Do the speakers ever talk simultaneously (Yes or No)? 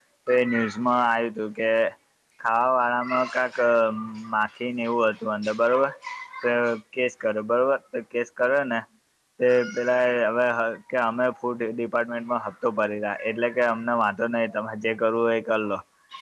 No